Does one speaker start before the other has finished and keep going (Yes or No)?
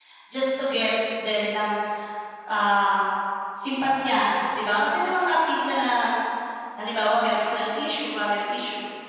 No